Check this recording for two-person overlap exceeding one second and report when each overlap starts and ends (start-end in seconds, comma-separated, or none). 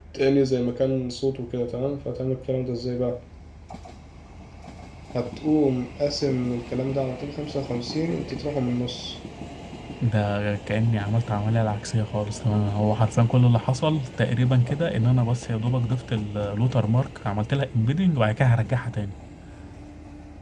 none